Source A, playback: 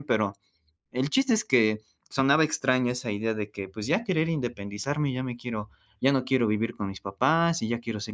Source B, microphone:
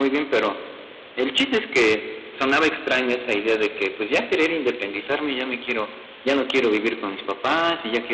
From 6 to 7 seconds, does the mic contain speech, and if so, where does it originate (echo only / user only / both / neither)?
echo only